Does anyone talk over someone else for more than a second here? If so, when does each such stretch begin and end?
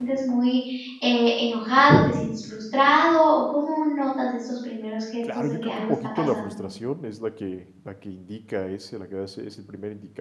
5.3-6.6

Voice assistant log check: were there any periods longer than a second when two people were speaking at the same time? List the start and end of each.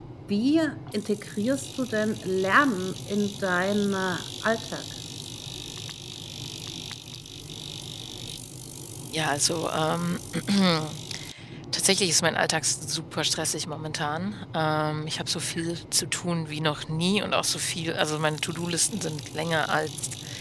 none

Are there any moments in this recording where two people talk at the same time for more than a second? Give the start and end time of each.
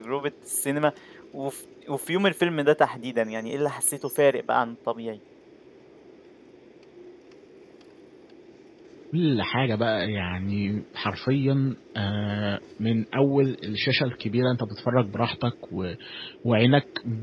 none

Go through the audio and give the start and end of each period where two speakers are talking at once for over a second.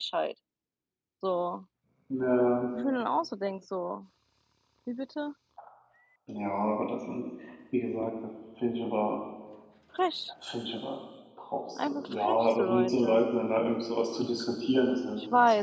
11.8-13.2

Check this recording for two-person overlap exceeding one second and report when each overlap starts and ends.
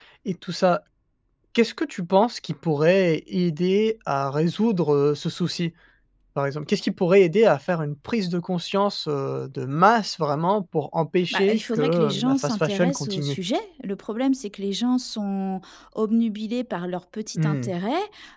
11.3-13.4

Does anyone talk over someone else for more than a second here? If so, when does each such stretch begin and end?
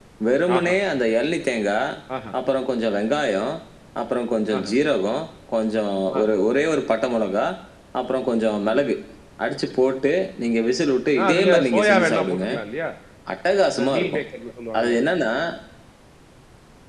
11.2-12.5

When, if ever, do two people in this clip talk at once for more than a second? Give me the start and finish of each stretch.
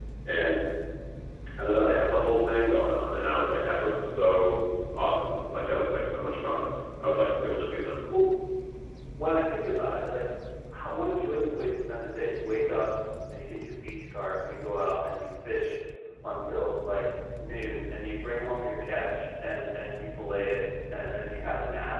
none

